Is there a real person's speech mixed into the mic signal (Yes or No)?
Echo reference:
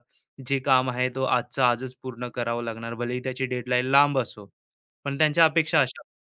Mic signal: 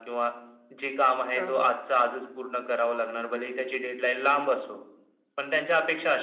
Yes